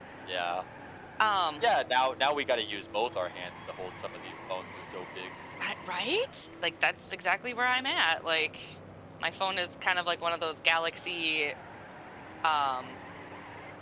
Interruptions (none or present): none